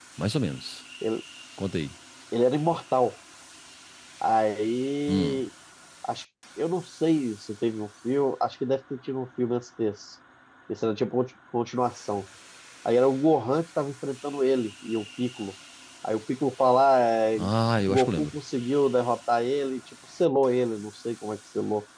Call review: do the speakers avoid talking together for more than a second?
Yes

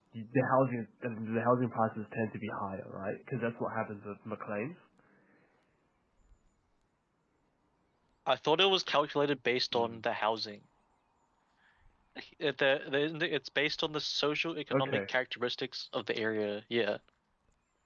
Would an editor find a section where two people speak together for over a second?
No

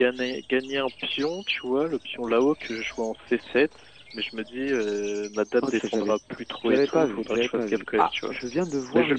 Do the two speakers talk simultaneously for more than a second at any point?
Yes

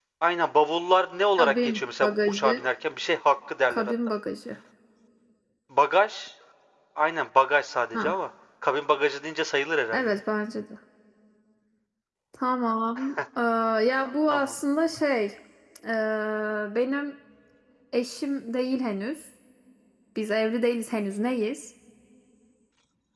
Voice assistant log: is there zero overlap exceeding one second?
No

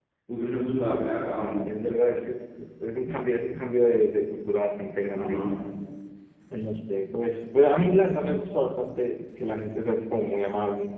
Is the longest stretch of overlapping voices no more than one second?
Yes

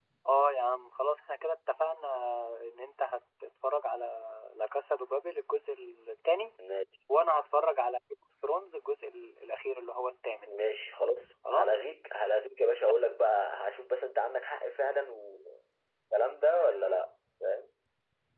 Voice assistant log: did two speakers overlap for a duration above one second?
No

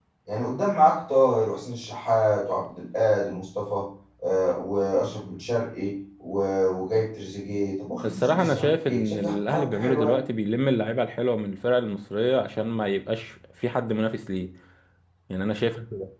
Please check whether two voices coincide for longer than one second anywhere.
Yes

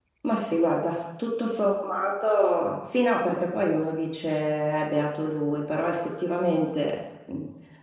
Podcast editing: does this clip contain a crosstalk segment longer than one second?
No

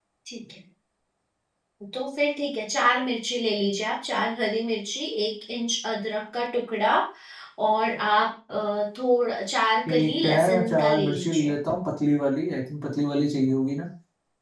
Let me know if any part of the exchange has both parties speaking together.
Yes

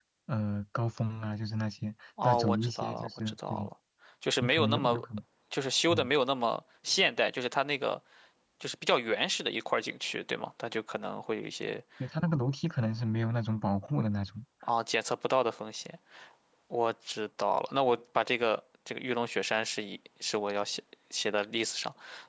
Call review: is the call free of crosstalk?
No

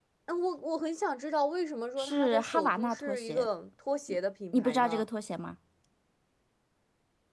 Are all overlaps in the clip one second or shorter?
No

